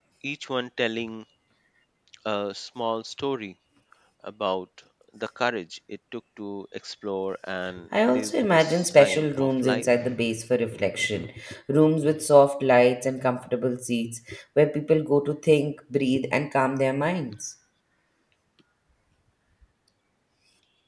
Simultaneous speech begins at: 7.9 s

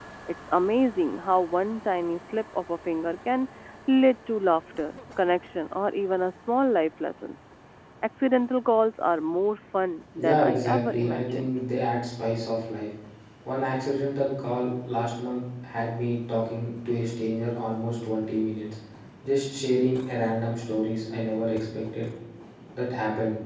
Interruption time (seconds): 10.2 s

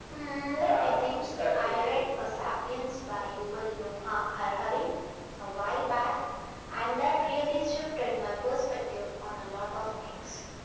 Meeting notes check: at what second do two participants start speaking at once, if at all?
0.6 s

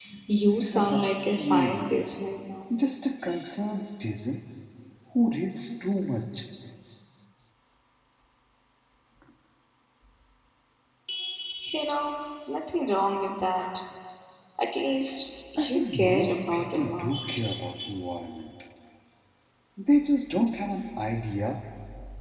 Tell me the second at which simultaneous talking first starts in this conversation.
0.7 s

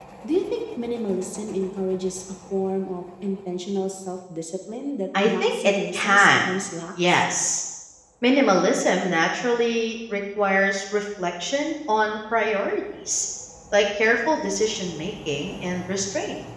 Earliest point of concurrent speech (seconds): 5.2 s

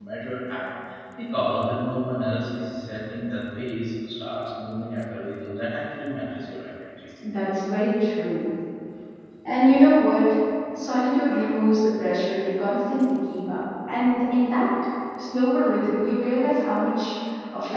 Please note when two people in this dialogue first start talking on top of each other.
none

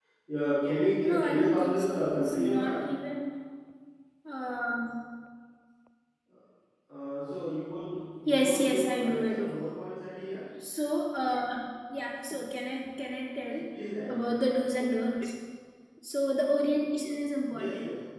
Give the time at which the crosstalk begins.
1.0 s

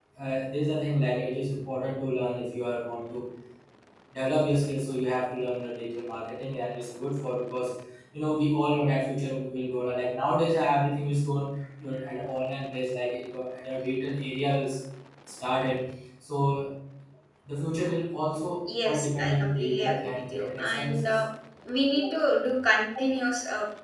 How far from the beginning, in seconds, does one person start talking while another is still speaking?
18.7 s

